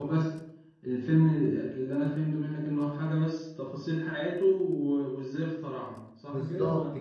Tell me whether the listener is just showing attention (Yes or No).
No